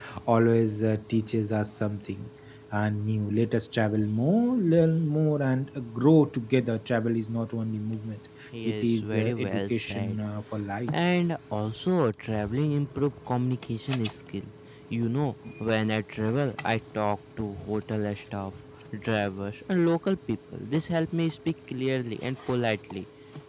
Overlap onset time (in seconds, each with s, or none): 8.5 s